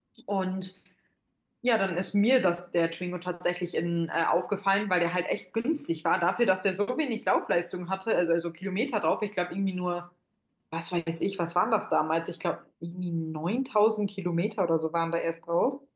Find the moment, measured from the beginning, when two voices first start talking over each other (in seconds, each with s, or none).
none